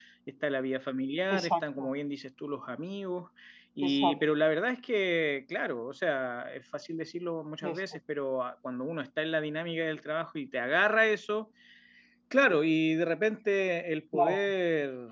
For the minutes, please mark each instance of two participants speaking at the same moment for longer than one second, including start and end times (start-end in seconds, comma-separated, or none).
none